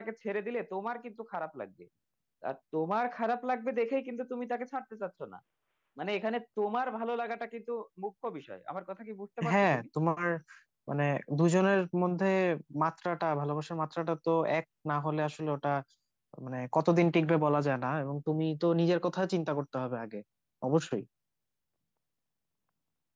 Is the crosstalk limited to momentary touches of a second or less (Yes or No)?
Yes